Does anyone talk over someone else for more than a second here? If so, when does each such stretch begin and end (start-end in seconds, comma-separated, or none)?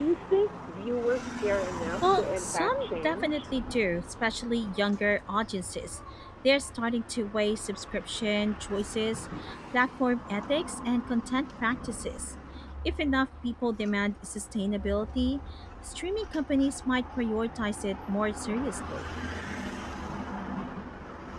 2.0-3.4